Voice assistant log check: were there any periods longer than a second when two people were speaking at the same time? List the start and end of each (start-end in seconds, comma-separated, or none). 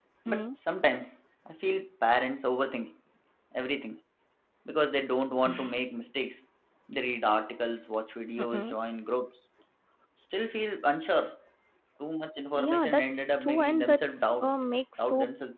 12.5-14.5